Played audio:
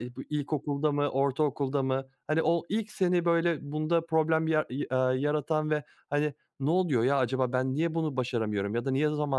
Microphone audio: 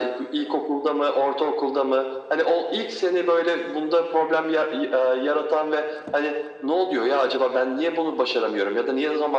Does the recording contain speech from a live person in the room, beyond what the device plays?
No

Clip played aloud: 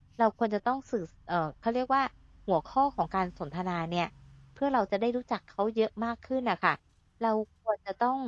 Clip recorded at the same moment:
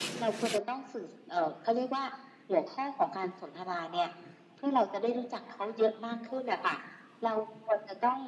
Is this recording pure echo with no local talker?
Yes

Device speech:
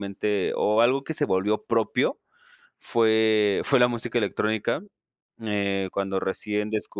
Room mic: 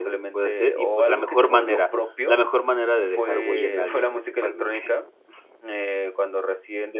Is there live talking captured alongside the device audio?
Yes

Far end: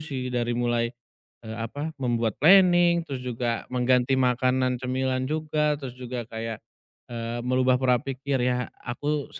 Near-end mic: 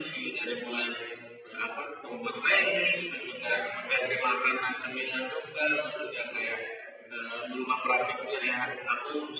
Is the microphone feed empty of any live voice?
Yes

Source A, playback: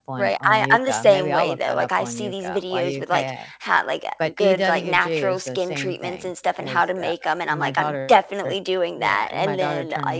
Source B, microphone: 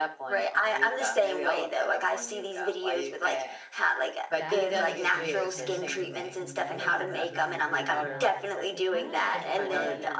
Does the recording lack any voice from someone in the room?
No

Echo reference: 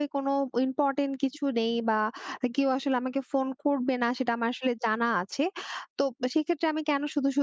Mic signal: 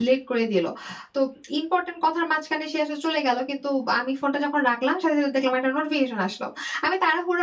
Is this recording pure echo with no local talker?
No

